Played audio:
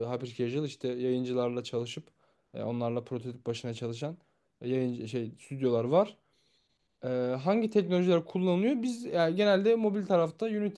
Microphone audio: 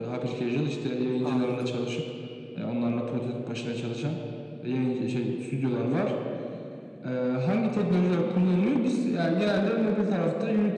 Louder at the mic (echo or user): echo